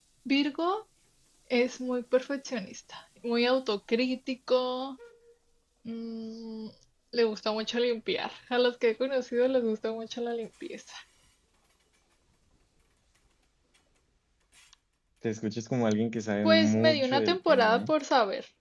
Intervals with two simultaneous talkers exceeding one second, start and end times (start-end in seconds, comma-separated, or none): 16.4-17.9